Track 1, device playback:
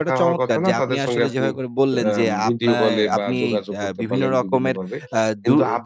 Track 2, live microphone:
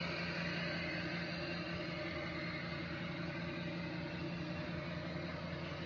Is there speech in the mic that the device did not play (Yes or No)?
No